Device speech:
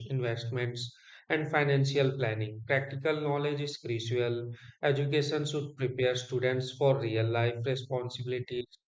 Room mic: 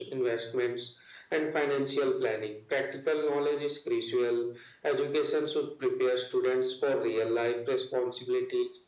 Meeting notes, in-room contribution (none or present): none